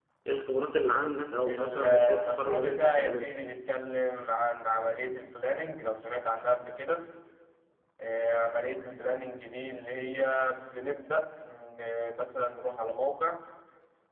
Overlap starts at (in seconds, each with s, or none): 1.4 s